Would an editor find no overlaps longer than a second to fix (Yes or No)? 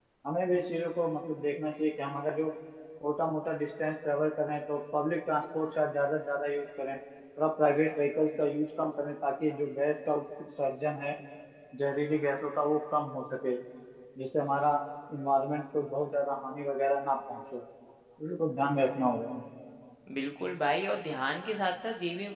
Yes